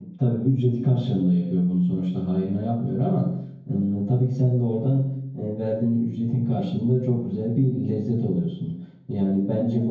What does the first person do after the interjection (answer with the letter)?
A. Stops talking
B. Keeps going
B